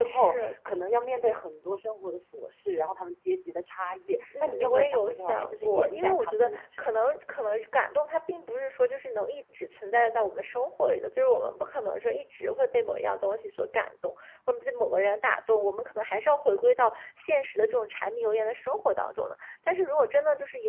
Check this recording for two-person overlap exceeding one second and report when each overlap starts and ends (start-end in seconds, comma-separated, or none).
4.4-7.0